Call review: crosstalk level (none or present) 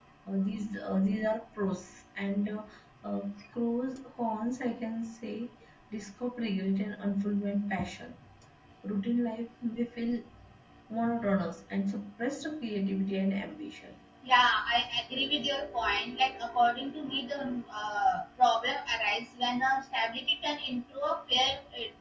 none